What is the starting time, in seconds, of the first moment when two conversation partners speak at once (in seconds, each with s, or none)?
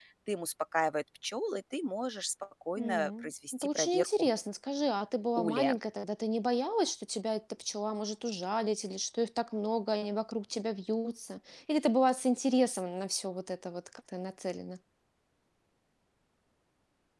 2.8 s